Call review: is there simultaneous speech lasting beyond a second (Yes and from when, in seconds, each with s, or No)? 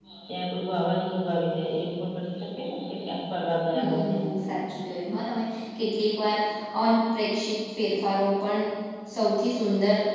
No